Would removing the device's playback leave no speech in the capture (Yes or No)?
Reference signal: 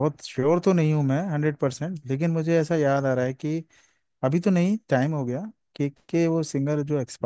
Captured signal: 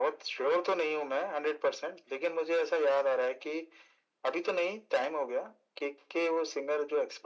Yes